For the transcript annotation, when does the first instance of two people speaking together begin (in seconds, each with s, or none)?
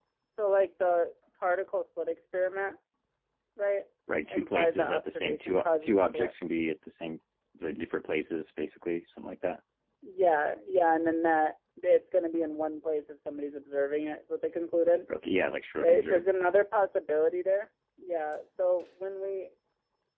4.3 s